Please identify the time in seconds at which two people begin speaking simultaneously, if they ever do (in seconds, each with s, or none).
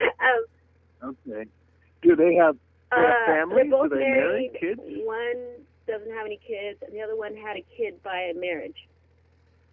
2.9 s